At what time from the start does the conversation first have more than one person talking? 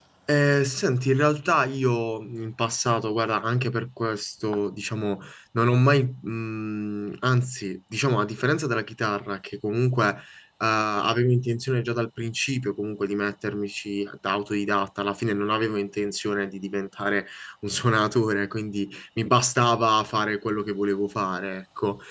none

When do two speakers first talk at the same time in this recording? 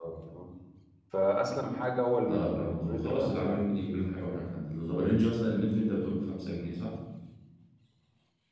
2 s

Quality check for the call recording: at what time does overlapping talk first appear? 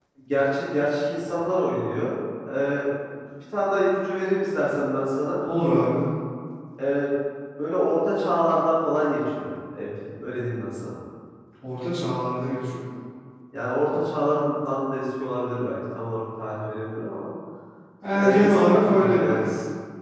18 s

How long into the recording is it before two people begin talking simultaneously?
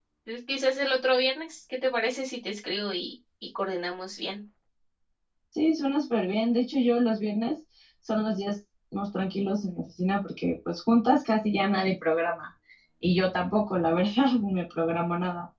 none

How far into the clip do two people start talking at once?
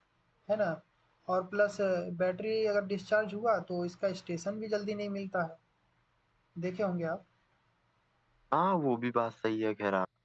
none

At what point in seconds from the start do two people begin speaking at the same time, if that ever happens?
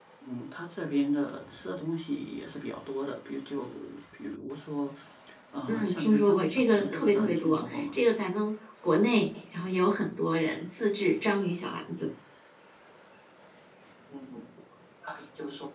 6 s

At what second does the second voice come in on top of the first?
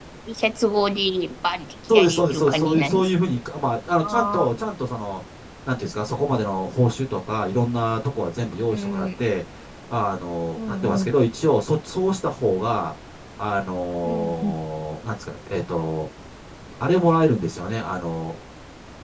2 s

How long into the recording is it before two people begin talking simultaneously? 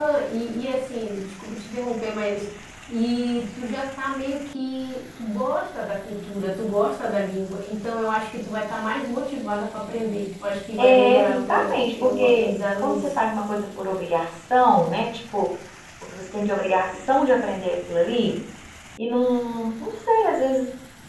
11 s

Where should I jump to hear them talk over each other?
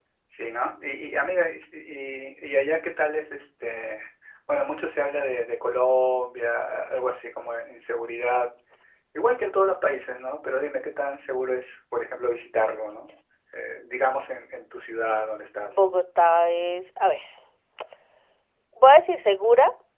none

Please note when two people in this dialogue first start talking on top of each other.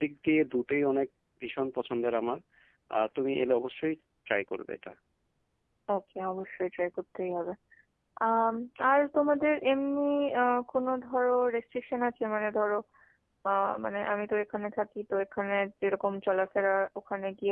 none

